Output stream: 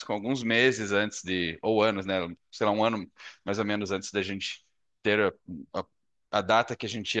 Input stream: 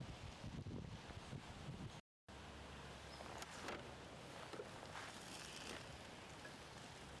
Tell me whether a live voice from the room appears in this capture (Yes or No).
No